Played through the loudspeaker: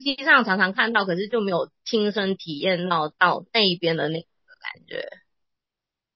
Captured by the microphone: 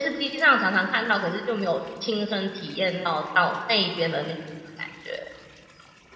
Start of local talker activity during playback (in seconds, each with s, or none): none